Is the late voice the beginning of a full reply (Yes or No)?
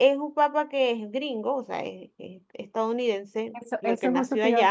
Yes